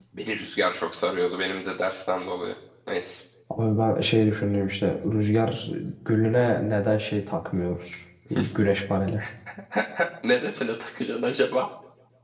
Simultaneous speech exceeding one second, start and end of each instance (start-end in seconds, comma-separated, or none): none